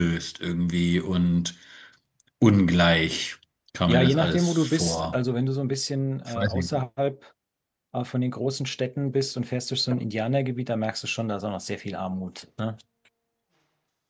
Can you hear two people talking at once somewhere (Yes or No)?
Yes